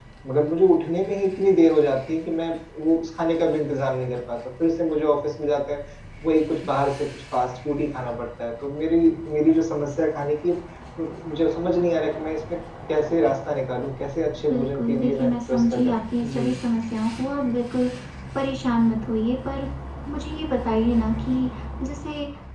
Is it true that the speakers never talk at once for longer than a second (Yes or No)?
No